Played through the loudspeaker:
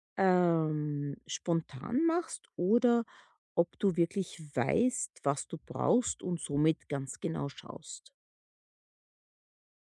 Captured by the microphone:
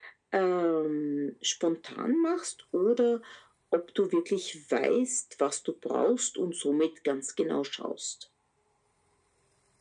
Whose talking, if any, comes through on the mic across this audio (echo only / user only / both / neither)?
echo only